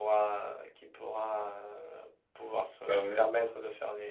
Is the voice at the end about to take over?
No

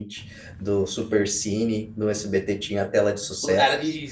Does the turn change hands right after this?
Yes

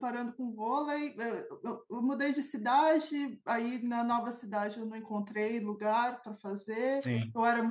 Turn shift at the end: No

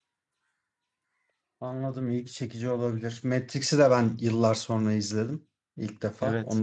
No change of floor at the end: No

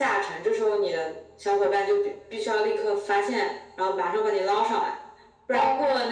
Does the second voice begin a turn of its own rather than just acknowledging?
No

